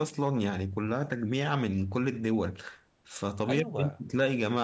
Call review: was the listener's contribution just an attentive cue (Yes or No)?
Yes